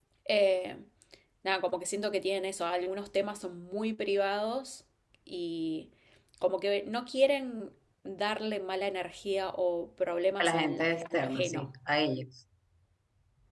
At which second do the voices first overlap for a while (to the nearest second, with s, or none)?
10 s